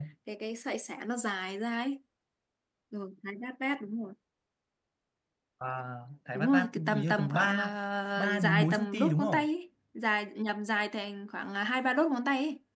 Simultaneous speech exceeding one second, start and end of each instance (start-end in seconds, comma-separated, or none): 6.3-7.7, 8.2-9.4